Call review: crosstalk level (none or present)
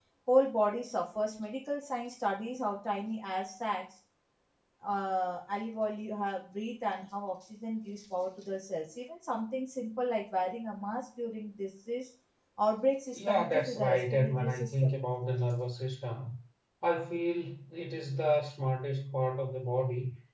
present